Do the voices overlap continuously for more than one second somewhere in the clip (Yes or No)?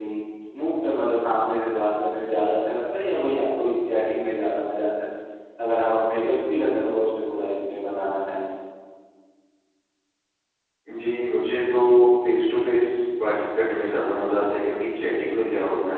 No